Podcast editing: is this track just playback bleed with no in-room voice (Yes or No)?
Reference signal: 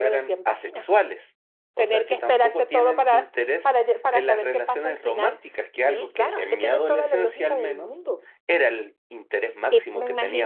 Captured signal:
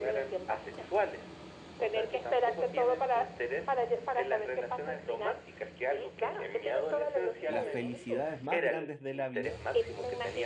No